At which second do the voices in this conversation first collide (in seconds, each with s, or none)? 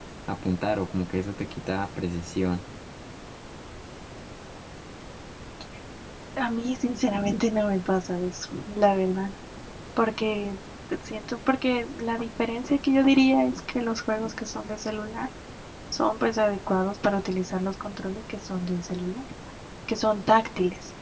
none